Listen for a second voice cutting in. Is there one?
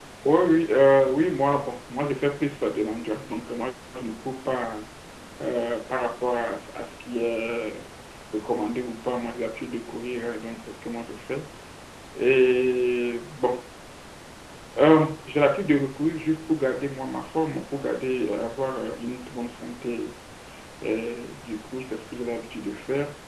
No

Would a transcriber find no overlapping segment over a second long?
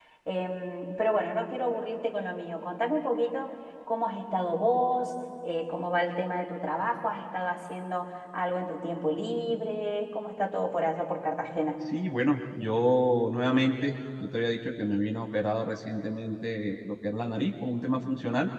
Yes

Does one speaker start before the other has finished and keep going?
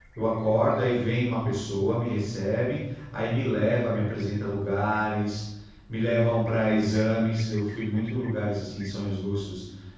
No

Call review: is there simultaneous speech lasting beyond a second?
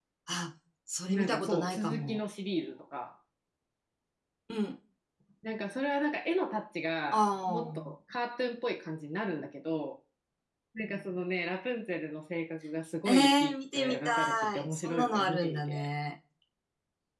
Yes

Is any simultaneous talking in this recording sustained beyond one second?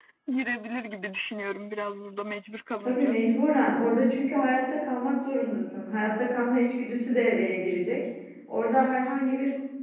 No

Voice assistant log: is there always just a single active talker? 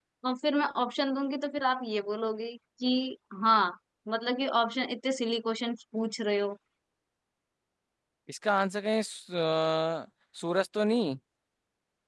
Yes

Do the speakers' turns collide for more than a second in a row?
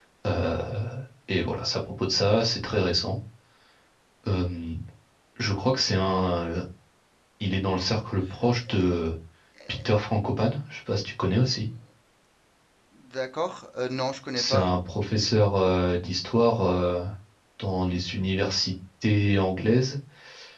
No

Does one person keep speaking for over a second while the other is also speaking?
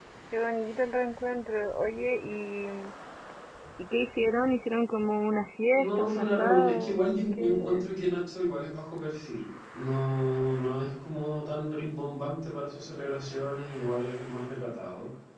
Yes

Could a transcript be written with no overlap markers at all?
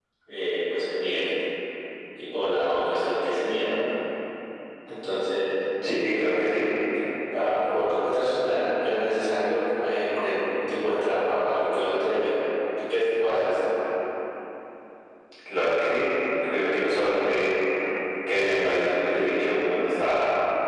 Yes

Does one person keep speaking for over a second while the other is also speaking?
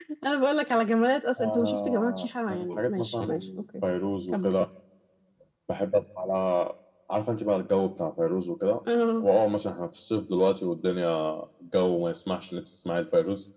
Yes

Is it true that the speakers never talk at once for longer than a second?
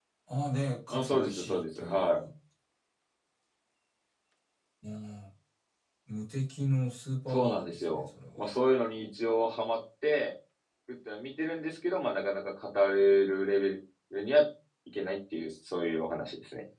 No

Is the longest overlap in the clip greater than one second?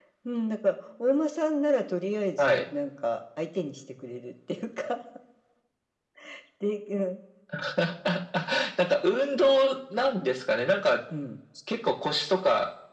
No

